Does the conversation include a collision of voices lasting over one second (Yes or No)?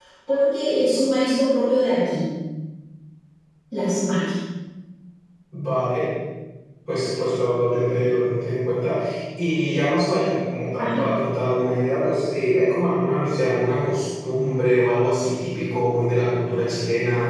No